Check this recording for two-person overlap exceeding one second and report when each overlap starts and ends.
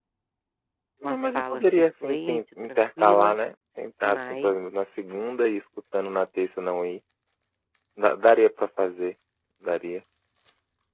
1.0-3.4

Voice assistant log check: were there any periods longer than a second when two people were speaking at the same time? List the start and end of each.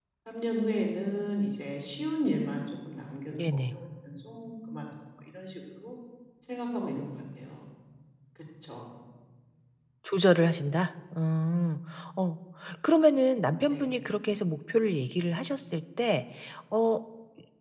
none

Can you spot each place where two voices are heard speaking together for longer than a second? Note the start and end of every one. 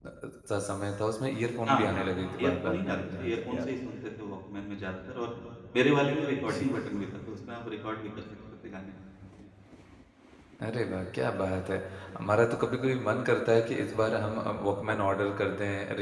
2.4-3.7

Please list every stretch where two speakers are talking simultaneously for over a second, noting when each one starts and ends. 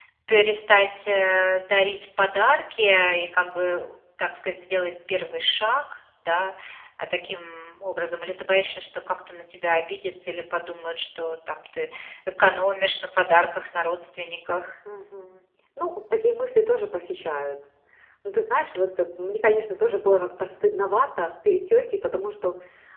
none

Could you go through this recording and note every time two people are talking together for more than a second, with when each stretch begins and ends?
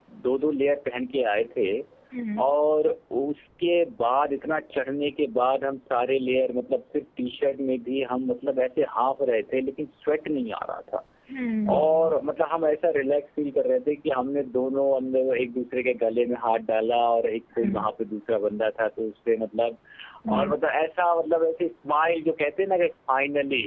none

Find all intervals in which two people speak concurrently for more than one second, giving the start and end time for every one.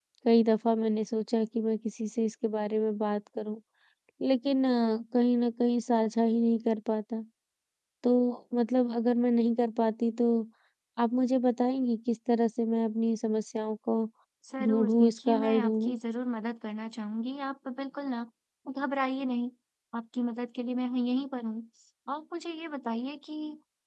14.6-16.0

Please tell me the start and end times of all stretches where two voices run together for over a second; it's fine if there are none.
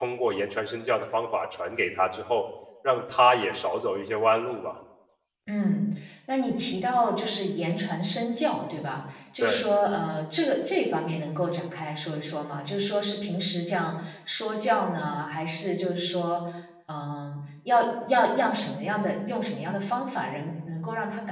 none

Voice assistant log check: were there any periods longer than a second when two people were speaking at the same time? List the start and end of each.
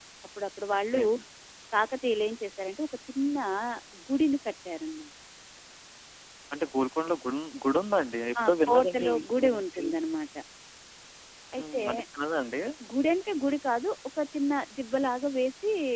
8.4-9.8

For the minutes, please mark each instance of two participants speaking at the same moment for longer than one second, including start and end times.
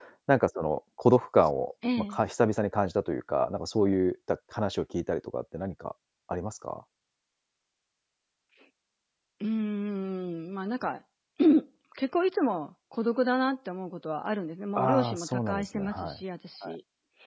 14.8-16.2

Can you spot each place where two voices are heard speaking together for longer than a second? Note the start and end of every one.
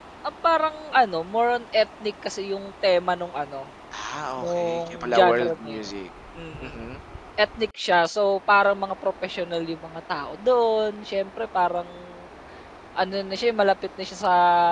4.4-5.8

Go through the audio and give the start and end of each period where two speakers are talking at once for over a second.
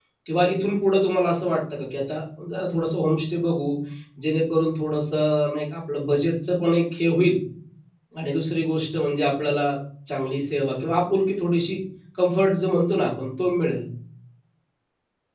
none

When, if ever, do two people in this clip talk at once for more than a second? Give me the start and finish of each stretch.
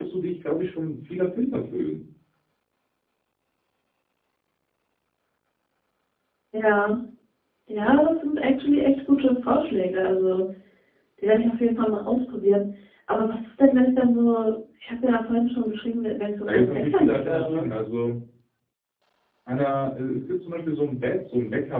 16.4-17.7

